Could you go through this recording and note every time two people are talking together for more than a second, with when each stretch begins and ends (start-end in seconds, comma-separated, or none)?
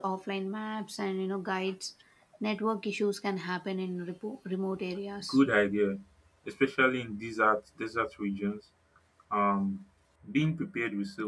none